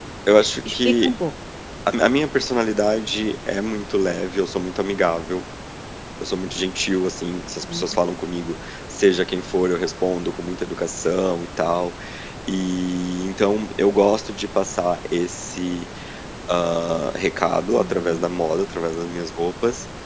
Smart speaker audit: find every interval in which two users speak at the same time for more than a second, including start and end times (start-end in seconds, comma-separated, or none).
none